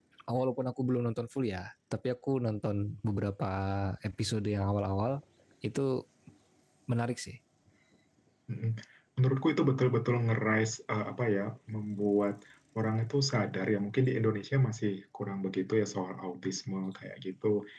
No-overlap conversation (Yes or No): Yes